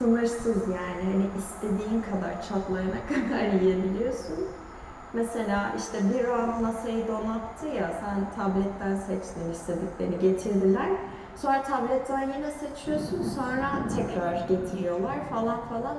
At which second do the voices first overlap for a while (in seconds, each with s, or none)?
none